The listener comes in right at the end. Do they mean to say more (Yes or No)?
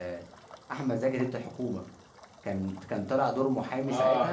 Yes